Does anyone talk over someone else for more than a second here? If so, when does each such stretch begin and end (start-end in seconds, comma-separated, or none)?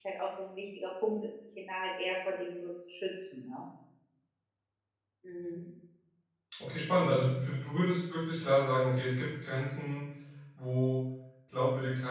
none